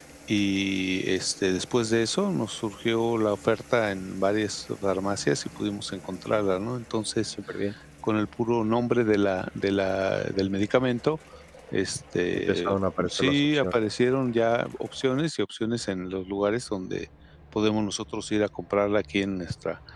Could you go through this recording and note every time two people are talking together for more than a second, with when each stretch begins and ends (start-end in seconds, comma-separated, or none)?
12.5-13.7